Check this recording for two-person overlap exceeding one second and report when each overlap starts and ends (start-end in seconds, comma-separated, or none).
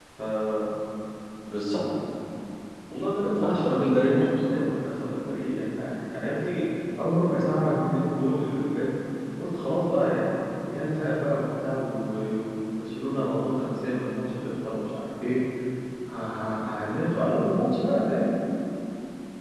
3.2-4.6